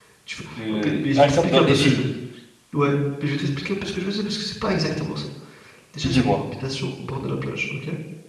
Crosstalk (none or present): present